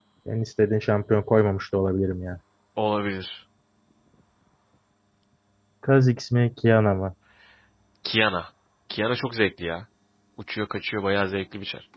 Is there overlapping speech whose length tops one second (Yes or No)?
No